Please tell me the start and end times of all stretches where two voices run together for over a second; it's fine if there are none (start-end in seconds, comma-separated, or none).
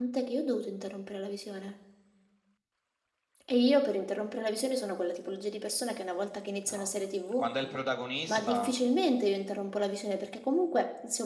none